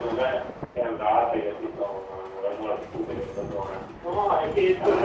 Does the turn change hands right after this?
Yes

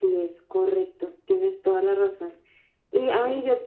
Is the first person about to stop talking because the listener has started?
No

